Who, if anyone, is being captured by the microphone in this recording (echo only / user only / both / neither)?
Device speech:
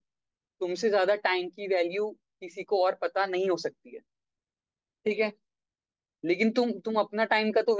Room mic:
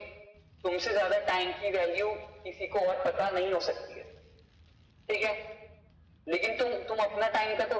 echo only